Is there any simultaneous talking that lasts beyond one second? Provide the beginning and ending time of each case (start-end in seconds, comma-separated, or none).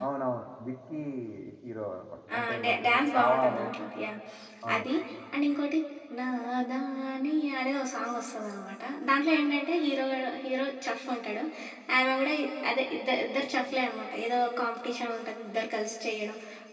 2.4-3.6